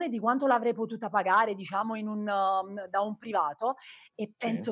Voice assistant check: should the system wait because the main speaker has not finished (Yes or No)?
Yes